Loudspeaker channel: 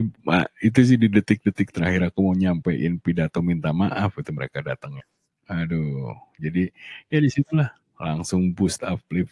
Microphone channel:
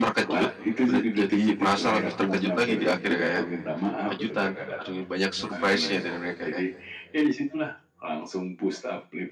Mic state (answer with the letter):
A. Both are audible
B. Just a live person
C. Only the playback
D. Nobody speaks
A